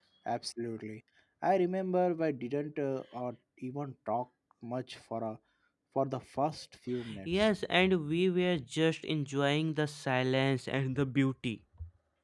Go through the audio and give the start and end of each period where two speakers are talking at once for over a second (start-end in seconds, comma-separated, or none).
none